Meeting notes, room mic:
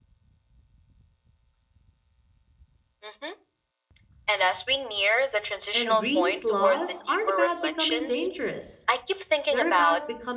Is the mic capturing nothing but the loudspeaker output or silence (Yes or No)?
No